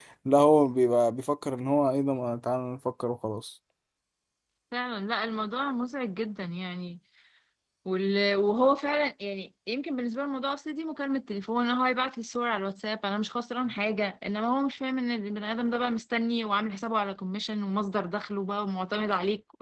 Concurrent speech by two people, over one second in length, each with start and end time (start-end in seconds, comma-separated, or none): none